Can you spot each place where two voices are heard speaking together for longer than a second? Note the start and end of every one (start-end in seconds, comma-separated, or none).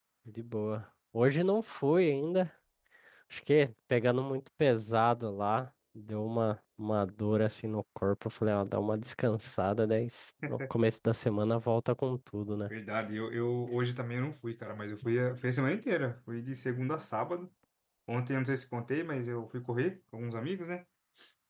none